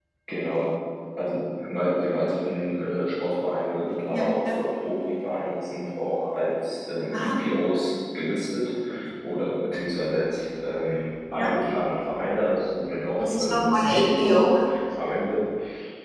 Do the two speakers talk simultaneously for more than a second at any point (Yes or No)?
Yes